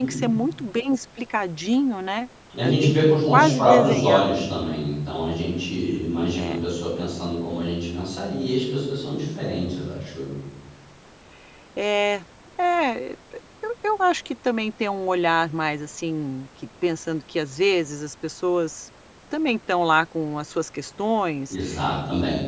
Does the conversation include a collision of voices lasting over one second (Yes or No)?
Yes